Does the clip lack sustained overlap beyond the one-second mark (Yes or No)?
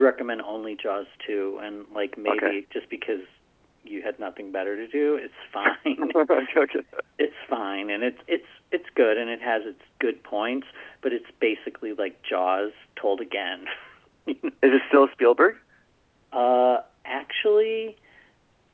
Yes